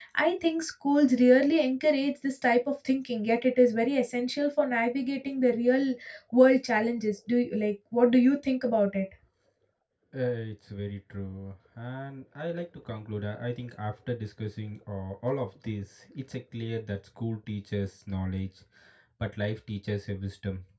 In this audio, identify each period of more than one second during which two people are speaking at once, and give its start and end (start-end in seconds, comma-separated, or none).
none